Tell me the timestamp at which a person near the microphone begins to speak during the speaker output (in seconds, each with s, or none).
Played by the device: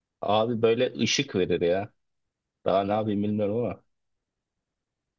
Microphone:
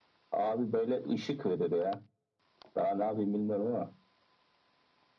none